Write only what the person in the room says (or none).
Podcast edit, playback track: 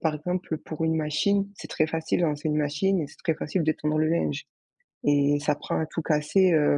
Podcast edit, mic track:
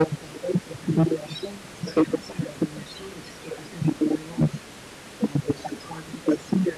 none